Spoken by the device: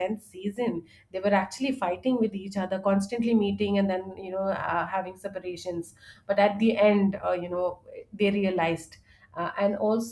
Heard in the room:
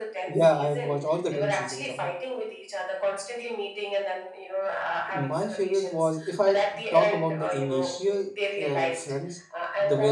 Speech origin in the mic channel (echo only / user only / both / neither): both